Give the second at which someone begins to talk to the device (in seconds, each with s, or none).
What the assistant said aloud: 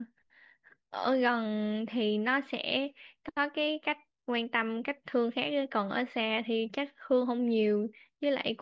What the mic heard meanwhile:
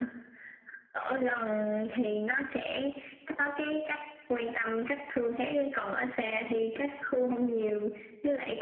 none